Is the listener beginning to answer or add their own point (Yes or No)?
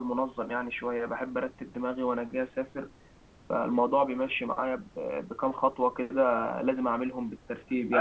Yes